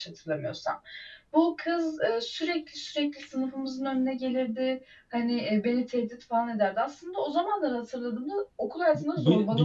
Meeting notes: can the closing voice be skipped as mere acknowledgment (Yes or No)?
No